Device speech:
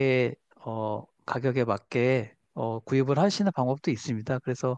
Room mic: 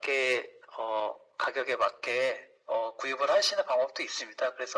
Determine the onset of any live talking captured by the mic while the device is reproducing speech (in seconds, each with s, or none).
none